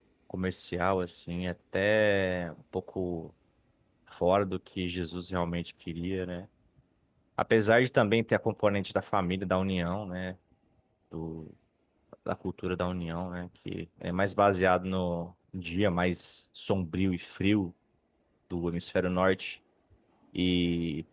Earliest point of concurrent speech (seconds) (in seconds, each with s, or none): none